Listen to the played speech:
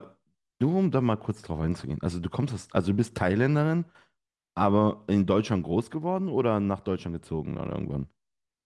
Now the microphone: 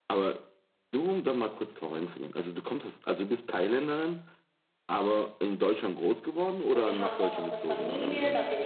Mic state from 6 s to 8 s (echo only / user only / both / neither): both